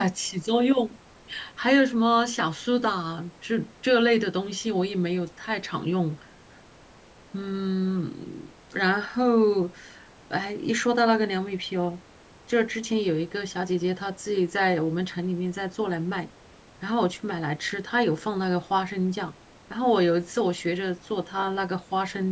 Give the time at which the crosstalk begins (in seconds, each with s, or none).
none